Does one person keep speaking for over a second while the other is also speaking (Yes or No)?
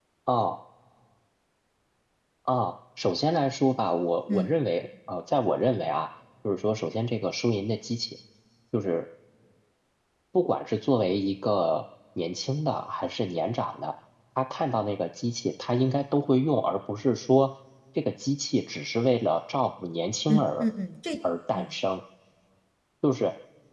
No